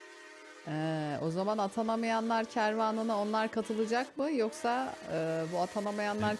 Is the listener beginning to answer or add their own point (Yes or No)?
No